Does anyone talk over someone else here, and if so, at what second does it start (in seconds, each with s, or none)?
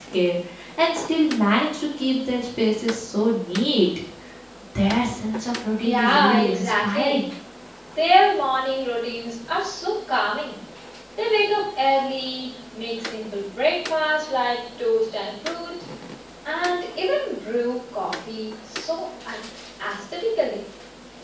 5.8 s